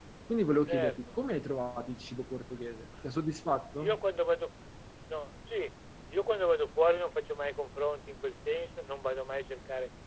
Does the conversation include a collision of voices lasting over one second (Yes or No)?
No